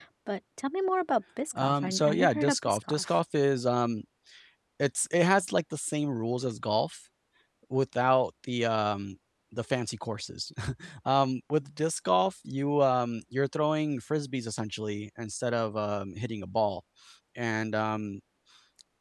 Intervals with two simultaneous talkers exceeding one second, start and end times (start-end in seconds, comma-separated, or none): 1.6-3.2